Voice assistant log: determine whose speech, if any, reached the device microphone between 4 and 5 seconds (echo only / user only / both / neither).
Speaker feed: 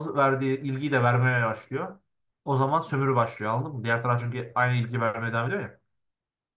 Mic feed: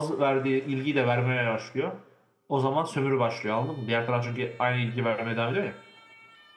echo only